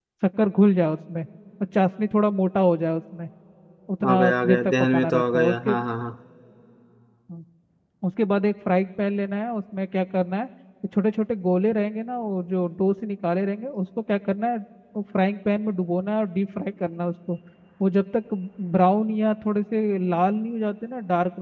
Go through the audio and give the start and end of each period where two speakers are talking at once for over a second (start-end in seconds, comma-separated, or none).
4.1-5.8